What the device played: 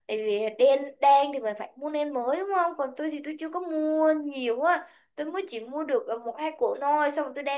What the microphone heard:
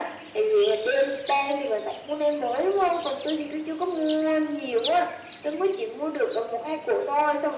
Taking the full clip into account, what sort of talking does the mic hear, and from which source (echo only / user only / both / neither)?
echo only